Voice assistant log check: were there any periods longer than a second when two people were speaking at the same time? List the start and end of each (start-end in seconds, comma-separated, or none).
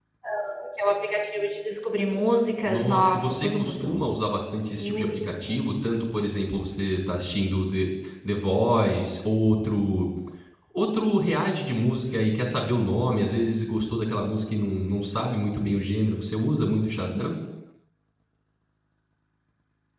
2.7-4.0